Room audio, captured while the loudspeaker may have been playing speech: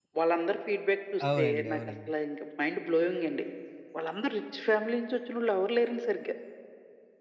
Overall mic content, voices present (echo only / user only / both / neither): both